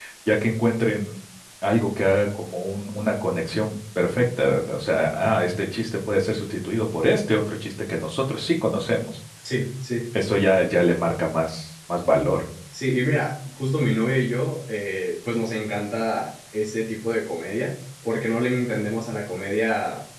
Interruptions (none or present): none